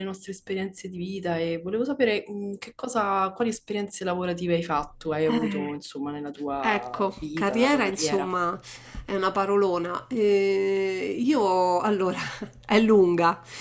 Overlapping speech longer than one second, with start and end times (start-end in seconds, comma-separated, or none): 6.7-8.3